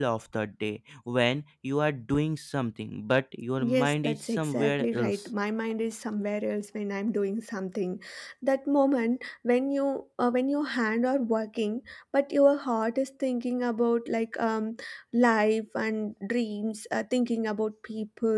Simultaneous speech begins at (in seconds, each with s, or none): 3.6 s